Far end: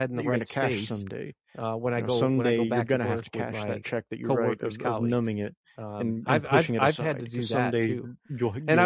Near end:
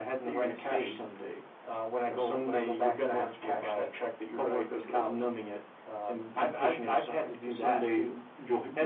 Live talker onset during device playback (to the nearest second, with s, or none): none